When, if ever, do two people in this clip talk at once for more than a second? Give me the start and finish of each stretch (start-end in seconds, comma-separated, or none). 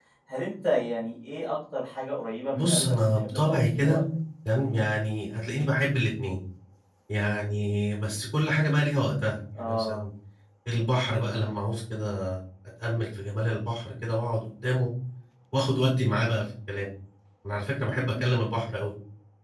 2.6-4.0